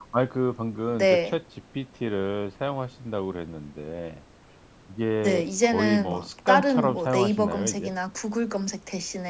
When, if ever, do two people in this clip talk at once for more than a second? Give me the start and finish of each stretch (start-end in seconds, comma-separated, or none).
5.2-7.9